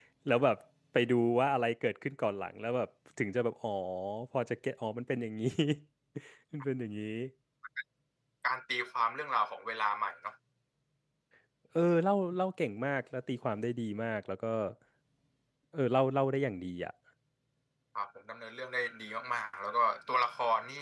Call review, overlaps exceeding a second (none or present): none